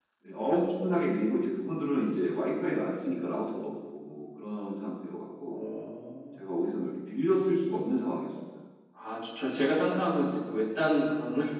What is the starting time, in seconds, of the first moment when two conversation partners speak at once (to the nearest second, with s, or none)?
none